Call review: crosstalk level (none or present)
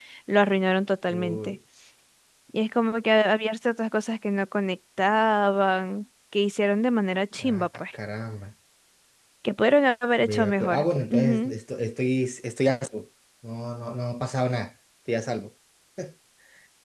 present